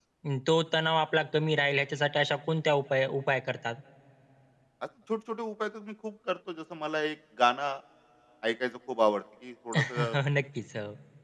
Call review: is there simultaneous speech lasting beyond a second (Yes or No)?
No